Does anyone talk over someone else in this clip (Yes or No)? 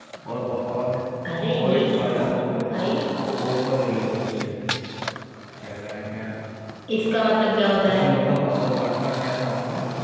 Yes